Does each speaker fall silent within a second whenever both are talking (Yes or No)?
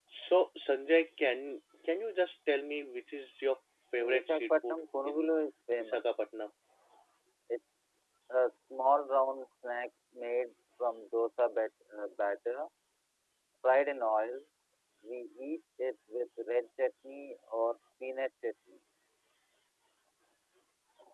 No